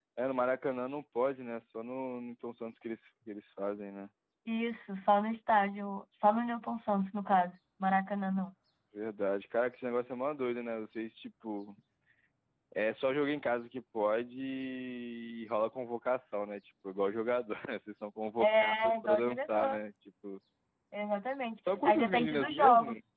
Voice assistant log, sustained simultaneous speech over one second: present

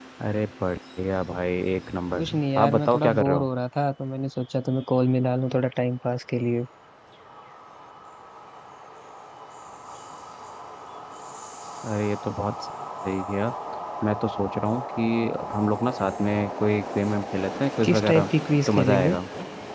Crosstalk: present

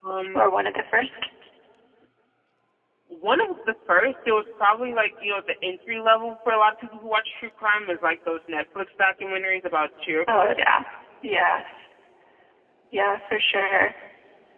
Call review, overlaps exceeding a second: none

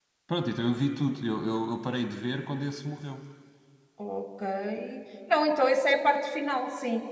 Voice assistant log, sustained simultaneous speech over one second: none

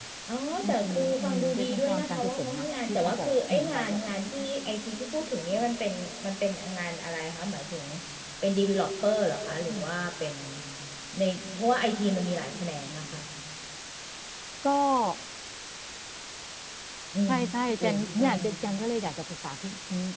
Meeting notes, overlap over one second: present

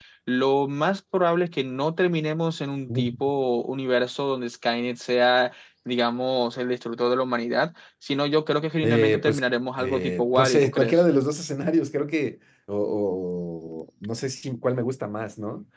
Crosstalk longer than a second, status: present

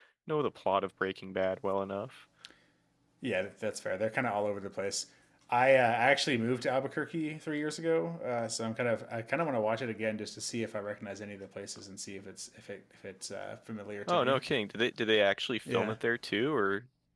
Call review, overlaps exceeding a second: none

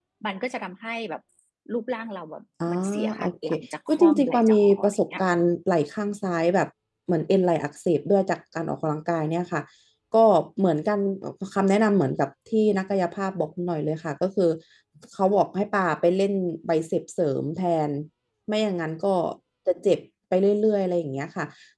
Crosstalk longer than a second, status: present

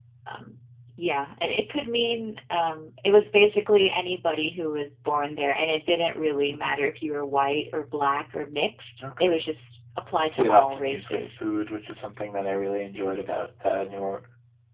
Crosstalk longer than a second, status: present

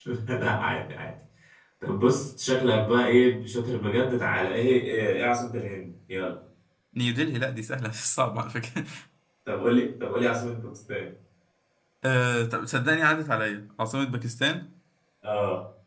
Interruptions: none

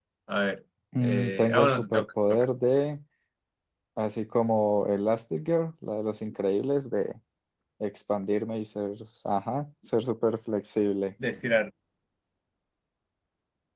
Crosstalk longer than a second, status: present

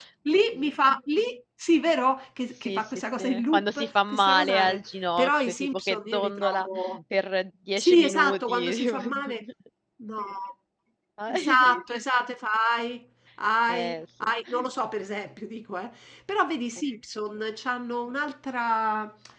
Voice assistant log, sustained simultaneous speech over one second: present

